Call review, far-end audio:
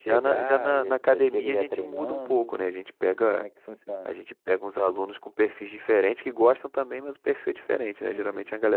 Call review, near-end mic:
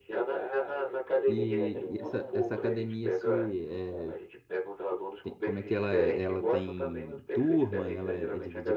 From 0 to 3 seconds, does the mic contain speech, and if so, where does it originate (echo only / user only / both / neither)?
both